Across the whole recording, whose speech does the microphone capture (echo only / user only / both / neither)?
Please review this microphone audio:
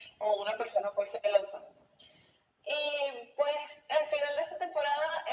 echo only